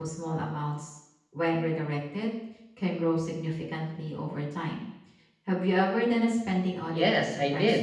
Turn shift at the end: Yes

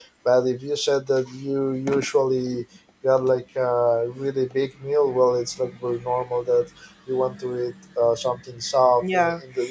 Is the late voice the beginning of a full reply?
Yes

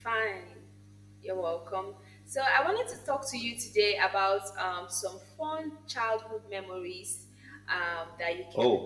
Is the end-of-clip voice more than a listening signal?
No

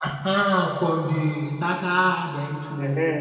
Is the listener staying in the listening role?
No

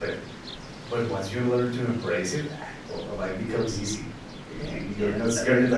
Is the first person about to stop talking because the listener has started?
Yes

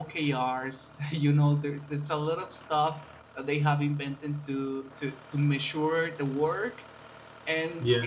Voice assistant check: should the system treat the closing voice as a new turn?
No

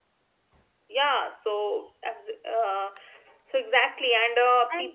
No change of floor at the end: Yes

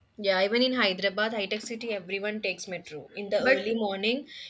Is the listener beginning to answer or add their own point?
No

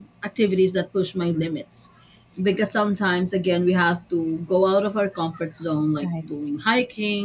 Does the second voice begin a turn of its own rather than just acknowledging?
No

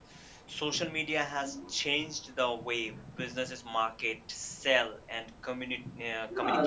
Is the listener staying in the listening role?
No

